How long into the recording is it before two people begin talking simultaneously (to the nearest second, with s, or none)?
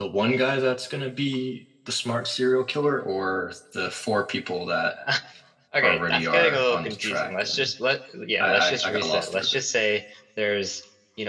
6 s